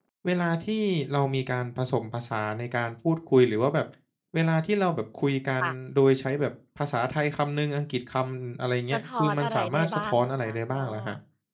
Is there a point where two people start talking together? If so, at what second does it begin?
8.9 s

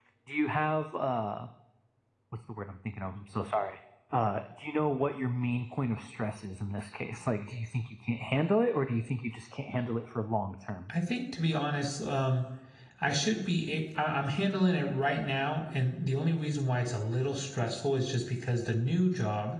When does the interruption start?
none

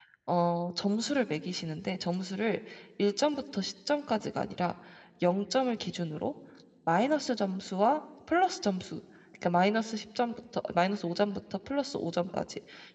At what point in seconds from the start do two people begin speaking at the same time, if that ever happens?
none

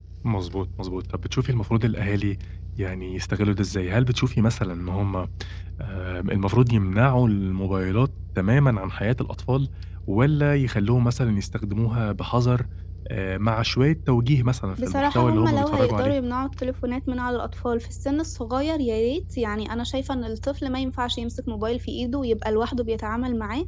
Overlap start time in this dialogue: 14.7 s

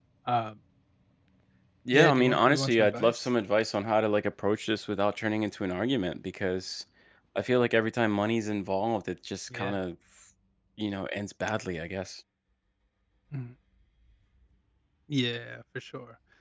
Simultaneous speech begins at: 1.9 s

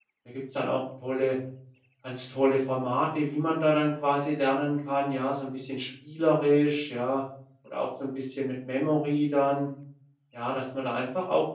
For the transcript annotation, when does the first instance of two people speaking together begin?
none

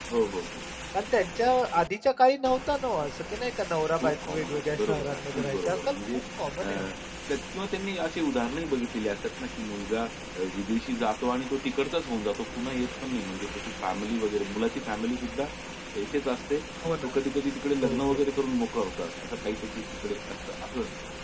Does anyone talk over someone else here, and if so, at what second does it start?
4.0 s

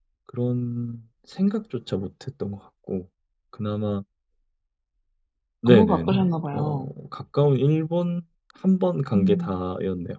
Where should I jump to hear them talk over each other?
5.7 s

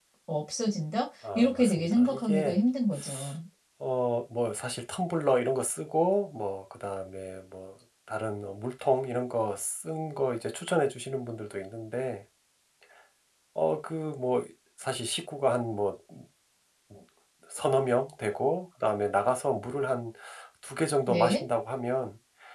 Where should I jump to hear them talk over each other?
1.4 s

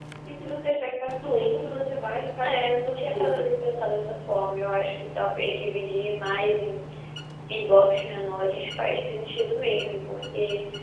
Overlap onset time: 1.7 s

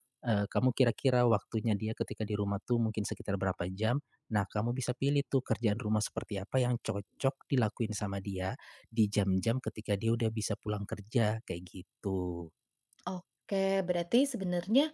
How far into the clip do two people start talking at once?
none

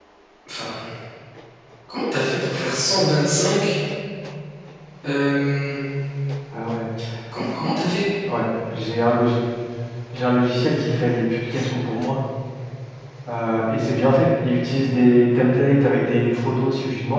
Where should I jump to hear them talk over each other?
none

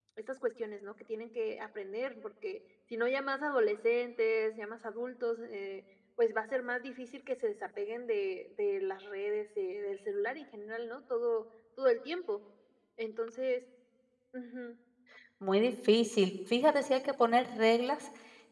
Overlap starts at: none

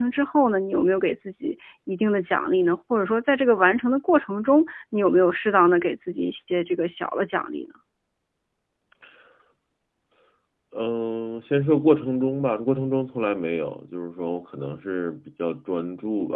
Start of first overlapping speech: none

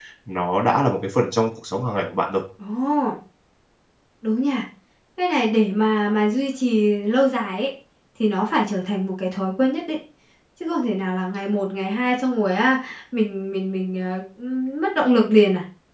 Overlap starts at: none

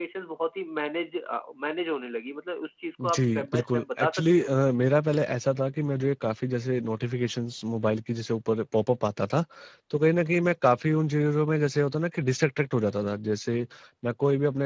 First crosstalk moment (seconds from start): 3.0 s

